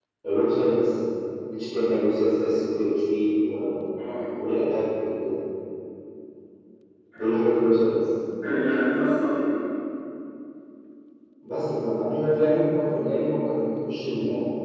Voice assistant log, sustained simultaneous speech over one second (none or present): none